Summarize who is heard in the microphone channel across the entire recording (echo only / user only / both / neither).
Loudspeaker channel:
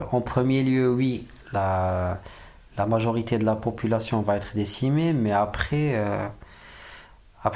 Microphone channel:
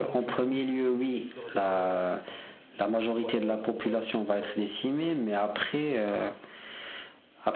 both